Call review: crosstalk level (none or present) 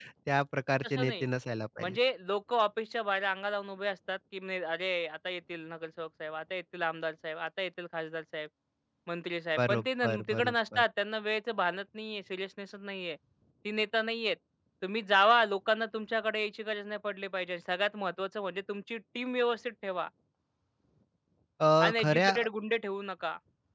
present